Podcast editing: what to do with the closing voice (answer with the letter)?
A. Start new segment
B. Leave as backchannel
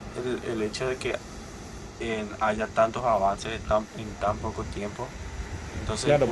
A